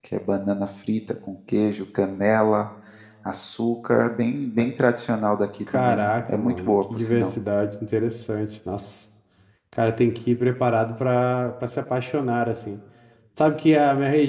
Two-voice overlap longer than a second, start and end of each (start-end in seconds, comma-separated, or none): 5.7-7.3